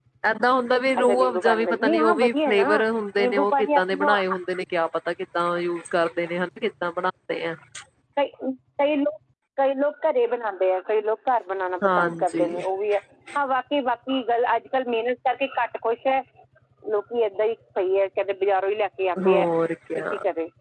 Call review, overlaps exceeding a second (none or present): present